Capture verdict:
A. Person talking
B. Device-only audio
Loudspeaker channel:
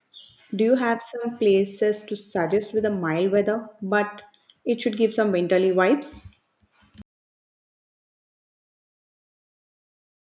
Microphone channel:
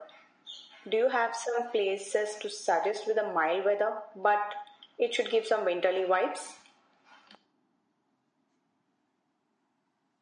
B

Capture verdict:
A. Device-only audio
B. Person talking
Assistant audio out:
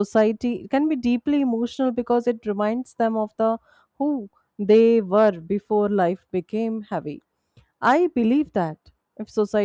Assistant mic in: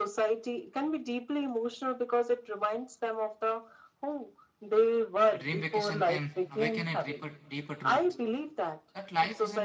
B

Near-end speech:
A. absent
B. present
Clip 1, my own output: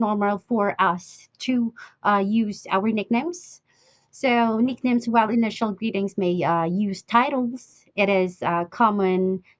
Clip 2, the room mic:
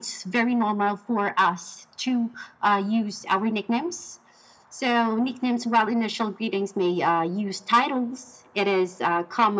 A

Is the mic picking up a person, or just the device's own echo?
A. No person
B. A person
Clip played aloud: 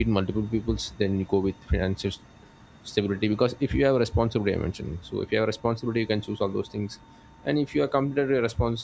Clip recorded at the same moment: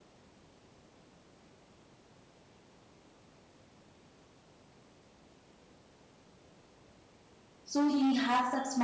B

